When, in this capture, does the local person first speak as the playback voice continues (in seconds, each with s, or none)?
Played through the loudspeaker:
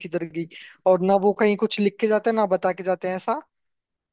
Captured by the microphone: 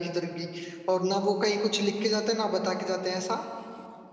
none